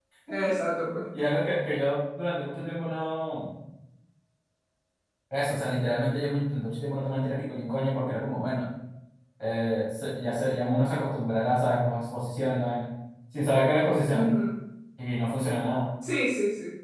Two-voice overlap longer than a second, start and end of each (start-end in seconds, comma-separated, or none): none